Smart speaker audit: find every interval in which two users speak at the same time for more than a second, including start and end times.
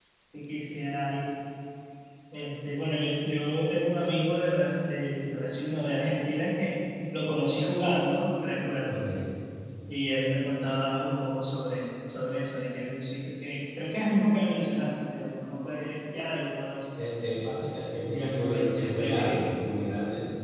18.1-19.5

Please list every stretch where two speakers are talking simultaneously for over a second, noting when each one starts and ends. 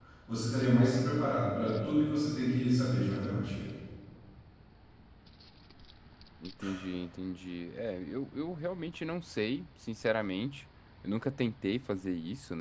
none

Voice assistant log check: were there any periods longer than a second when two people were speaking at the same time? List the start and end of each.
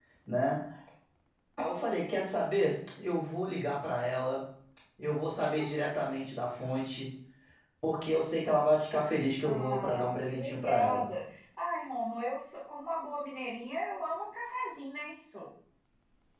9.4-11.1

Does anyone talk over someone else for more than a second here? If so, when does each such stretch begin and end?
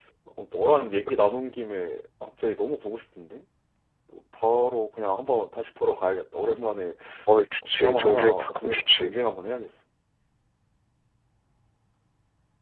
7.7-9.1

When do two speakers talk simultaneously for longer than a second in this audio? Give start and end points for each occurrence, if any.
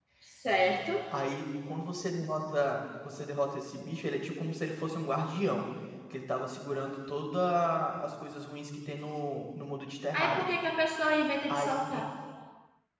none

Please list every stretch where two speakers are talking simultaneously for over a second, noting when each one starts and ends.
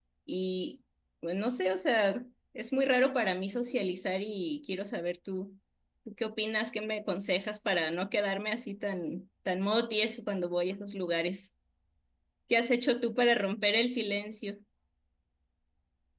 none

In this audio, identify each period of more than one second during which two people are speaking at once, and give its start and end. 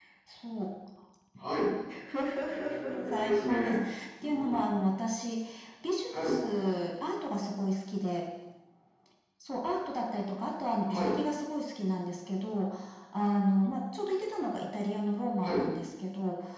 2.5-3.8

